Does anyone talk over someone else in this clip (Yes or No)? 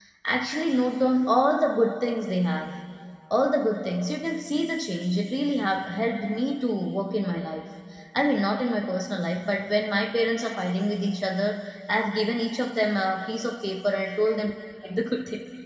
No